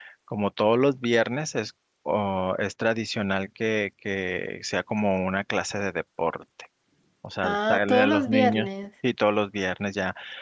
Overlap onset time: 7.4 s

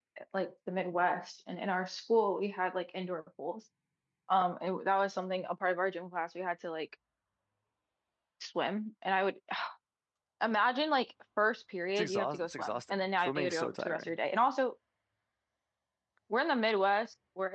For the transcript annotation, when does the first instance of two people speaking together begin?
12.0 s

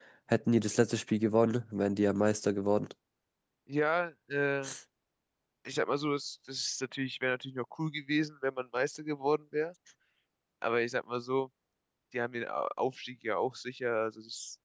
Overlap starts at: none

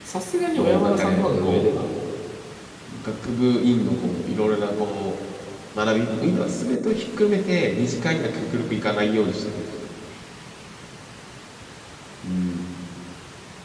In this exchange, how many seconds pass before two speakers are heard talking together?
0.6 s

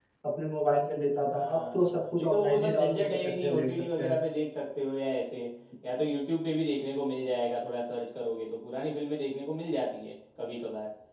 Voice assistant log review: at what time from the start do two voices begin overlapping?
1.3 s

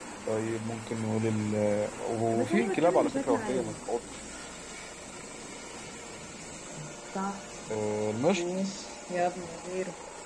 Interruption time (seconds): 2.4 s

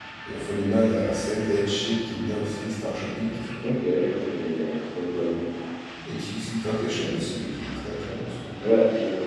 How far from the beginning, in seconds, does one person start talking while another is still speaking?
none

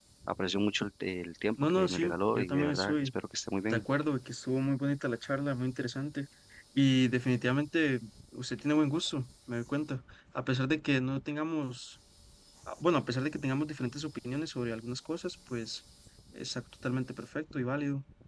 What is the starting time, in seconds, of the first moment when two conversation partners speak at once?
1.6 s

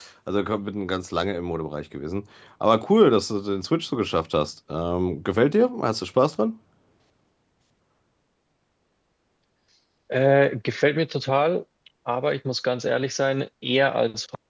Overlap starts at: none

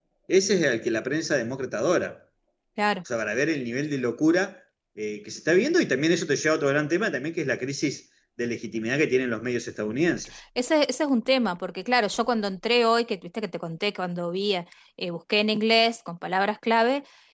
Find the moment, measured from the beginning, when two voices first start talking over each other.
none

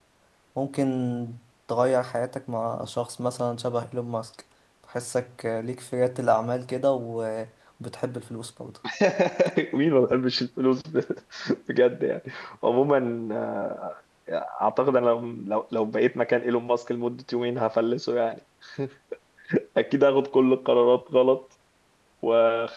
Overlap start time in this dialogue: none

